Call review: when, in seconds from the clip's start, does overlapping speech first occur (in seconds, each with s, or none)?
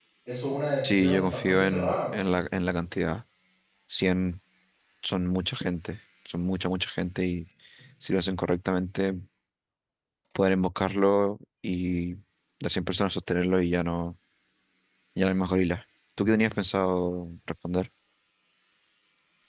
0.8 s